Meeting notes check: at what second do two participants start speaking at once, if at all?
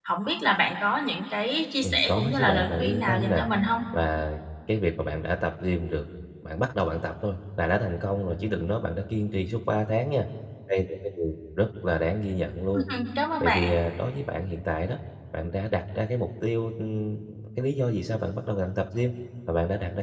1.8 s

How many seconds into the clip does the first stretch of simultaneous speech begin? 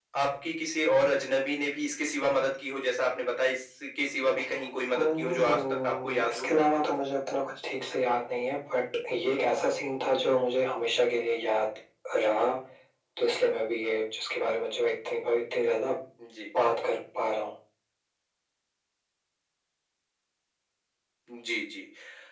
4.9 s

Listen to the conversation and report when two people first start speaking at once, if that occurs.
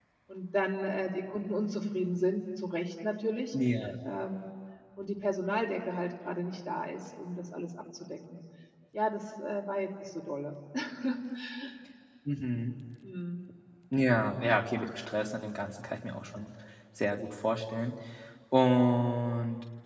none

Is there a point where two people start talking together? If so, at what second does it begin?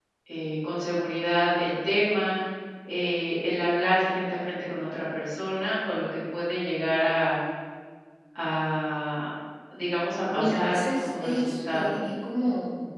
10.3 s

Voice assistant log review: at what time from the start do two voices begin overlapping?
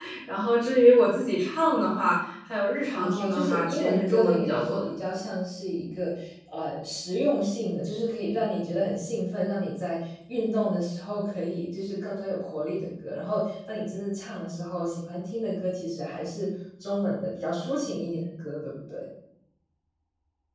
2.9 s

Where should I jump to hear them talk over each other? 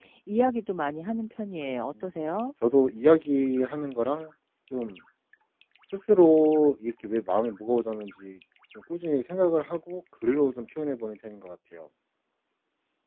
none

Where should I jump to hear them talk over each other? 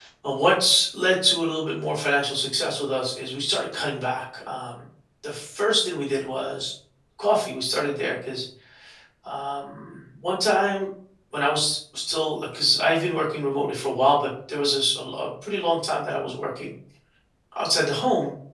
none

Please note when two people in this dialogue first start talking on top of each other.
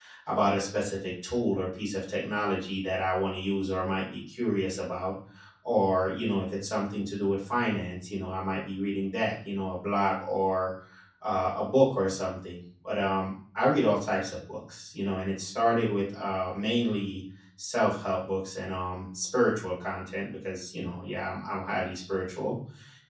none

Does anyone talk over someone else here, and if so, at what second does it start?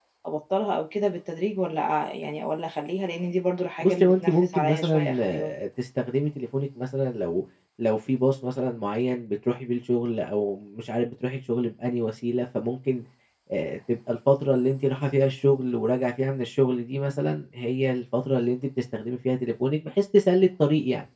3.8 s

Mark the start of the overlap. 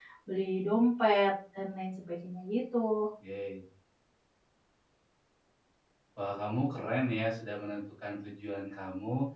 none

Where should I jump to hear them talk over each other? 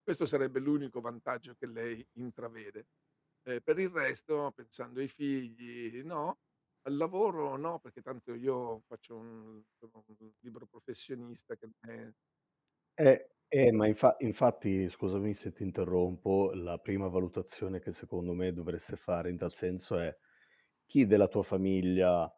none

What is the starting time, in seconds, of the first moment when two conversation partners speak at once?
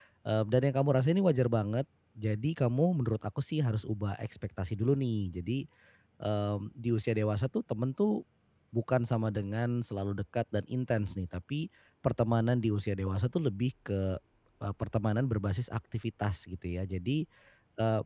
none

